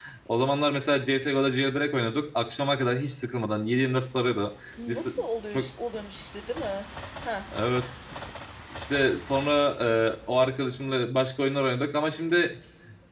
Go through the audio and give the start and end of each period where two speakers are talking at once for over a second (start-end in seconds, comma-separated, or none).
none